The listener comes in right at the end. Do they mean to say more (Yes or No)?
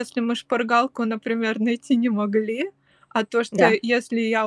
No